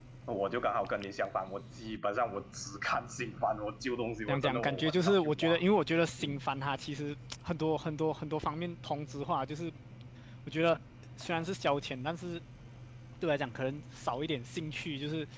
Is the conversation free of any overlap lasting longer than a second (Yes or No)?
No